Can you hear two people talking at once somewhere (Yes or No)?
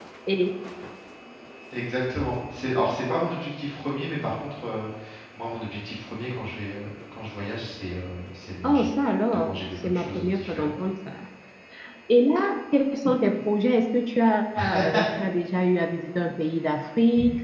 Yes